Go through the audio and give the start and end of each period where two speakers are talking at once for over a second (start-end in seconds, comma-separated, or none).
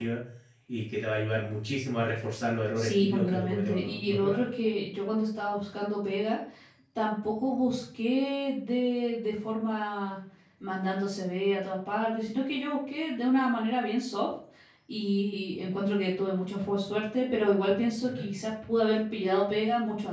2.8-4.5